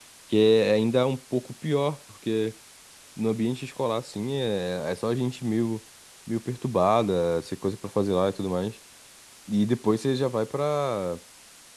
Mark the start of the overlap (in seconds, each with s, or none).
none